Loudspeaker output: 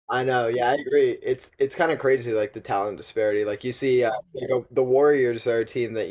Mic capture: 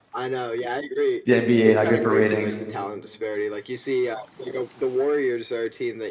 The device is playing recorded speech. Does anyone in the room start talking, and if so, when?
1.2 s

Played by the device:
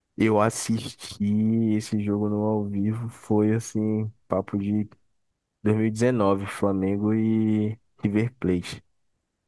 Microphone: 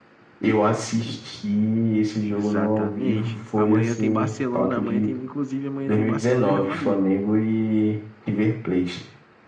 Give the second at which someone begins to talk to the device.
2.3 s

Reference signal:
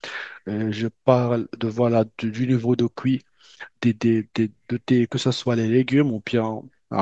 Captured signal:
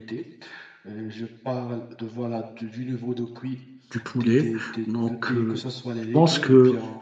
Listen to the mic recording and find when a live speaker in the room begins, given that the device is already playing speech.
3.9 s

